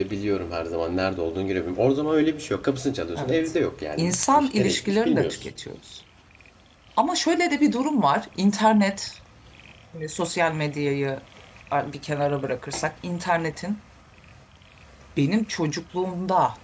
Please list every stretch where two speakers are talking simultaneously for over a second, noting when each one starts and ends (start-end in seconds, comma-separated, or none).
4.0-5.5